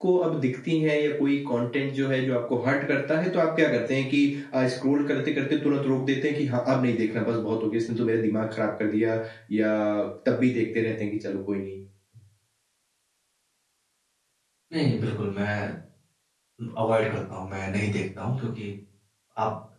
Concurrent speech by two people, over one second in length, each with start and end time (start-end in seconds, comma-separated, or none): none